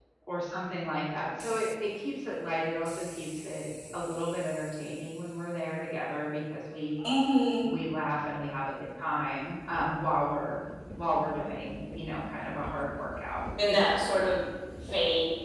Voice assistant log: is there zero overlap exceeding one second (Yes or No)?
Yes